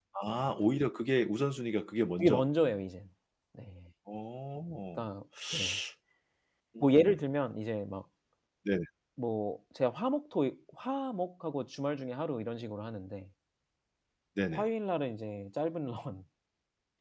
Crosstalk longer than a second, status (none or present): none